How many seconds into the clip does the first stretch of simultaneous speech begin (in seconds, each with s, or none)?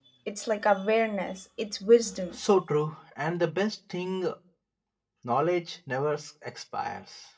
none